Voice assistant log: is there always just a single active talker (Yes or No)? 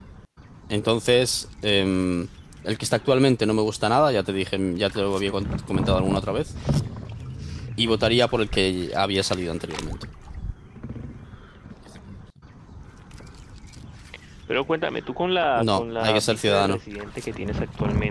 No